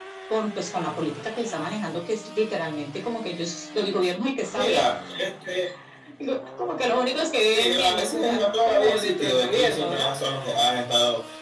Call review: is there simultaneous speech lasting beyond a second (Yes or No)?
Yes